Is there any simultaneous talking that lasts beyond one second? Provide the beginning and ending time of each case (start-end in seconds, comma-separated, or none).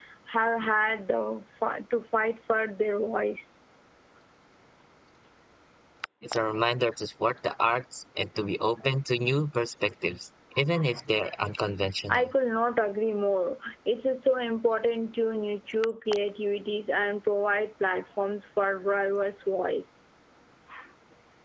none